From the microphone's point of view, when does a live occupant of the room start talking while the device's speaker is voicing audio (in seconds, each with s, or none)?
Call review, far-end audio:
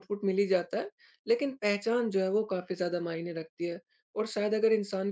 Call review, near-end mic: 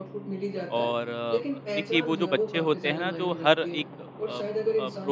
0.8 s